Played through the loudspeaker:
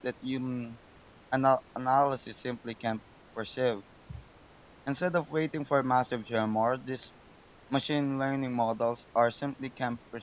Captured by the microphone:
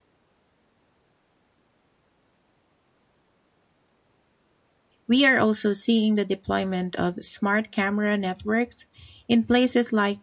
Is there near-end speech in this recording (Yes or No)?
Yes